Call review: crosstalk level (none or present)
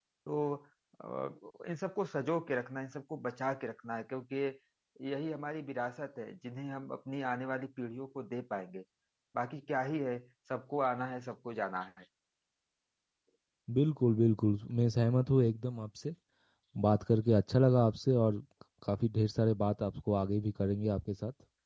none